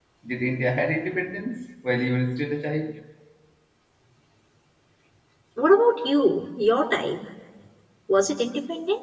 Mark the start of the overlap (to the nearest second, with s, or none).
none